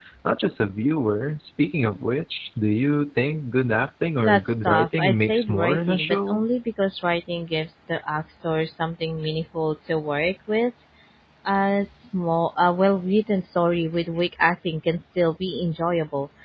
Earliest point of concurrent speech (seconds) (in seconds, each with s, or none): 4.2 s